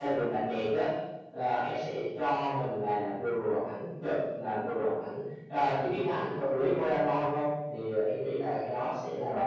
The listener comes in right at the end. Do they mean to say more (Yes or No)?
Yes